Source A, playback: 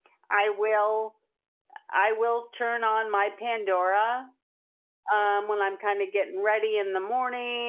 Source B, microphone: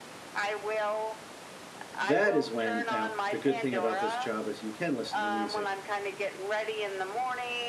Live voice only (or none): That is when now the good thing about this job is you can listen to music